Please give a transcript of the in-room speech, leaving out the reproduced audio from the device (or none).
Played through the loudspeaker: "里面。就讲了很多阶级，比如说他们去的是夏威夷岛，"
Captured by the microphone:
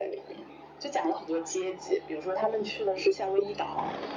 none